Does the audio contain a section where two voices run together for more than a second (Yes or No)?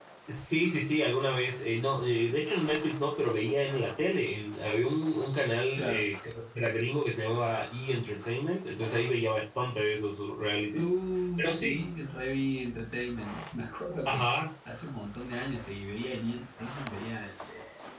No